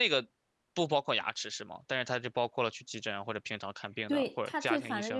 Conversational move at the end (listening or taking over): taking over